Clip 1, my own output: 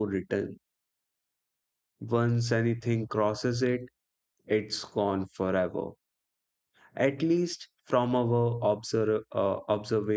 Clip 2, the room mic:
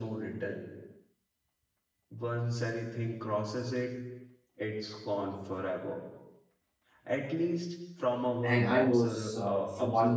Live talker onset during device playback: 8.4 s

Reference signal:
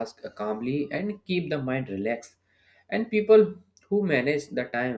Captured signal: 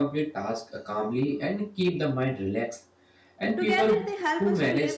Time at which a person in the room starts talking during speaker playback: 3.6 s

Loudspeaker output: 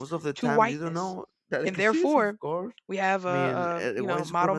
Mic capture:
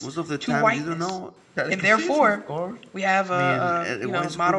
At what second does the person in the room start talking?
none

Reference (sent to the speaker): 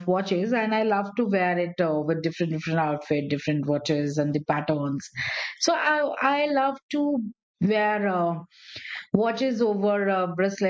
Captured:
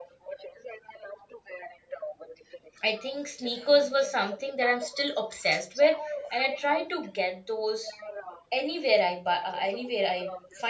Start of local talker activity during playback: 2.8 s

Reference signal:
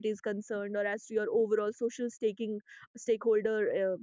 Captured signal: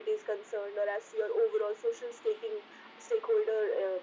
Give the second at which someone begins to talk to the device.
none

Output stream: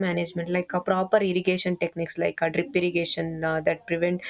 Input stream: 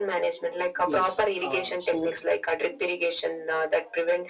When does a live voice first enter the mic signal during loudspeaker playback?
0.8 s

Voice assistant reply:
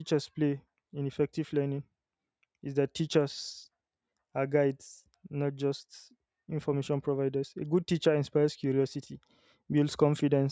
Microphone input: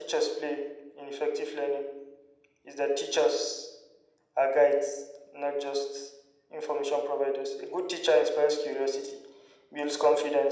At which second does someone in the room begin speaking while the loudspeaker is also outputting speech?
none

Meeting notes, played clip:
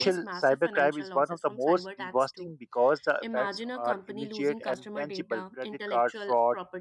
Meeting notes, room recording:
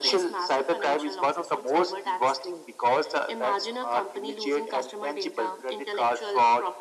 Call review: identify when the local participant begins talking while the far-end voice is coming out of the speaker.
none

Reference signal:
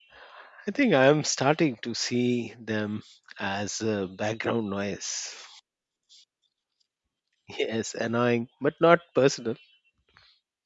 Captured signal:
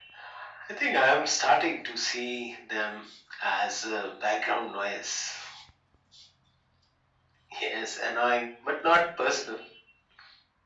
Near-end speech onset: none

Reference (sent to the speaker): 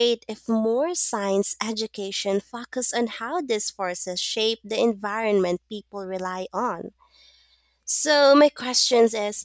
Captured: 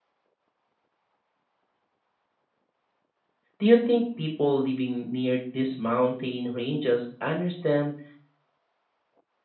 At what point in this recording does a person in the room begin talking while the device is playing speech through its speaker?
3.6 s

